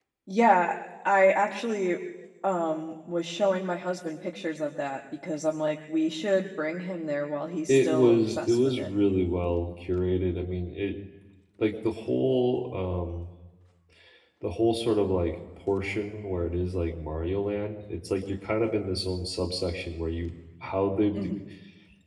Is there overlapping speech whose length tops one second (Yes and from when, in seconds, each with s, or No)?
Yes, from 7.7 s